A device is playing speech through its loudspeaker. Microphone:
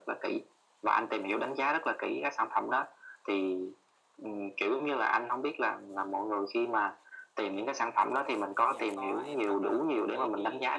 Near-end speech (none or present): present